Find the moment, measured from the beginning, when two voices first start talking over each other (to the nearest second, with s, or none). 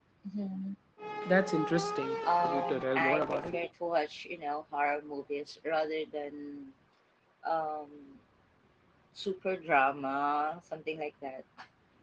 2 s